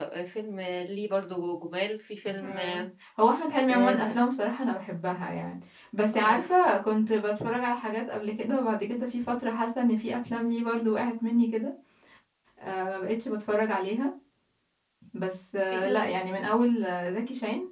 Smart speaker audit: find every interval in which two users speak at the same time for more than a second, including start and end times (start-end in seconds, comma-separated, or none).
none